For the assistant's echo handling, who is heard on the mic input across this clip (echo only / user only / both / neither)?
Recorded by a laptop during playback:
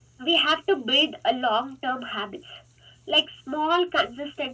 echo only